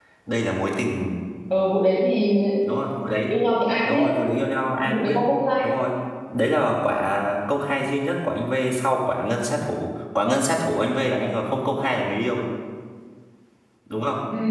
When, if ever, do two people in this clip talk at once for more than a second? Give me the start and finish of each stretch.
none

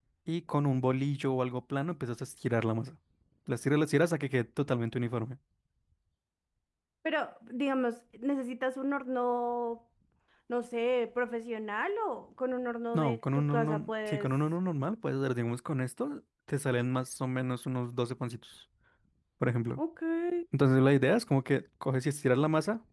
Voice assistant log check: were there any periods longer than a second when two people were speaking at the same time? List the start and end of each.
12.9-14.3

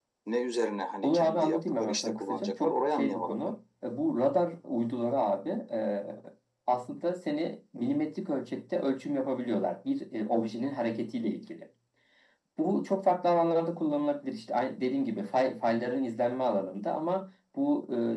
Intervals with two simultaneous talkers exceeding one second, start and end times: 1.0-3.5

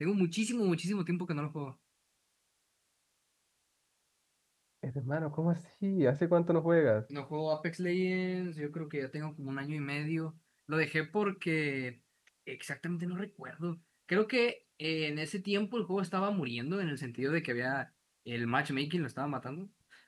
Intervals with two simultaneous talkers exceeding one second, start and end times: none

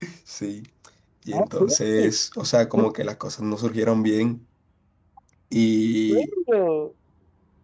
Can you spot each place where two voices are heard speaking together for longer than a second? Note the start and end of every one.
none

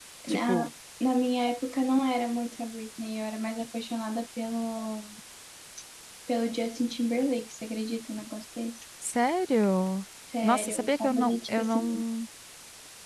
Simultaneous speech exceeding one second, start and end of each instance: 10.4-11.8

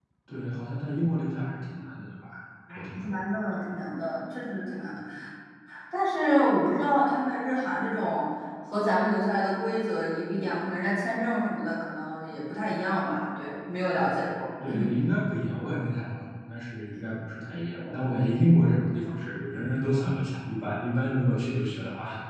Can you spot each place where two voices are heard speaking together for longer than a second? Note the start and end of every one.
none

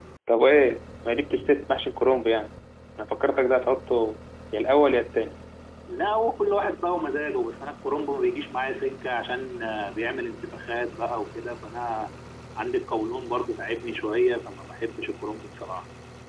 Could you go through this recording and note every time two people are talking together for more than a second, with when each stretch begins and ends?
none

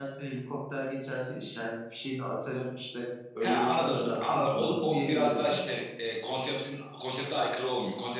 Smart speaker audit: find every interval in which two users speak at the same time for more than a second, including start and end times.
3.4-5.6

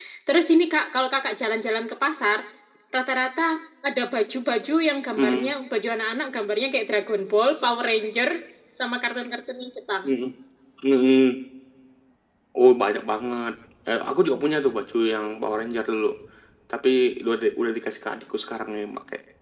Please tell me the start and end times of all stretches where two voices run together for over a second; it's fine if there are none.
none

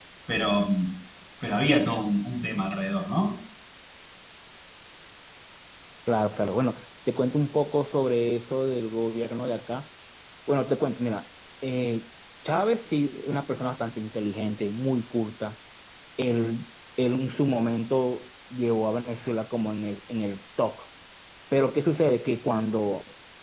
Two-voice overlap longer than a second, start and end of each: none

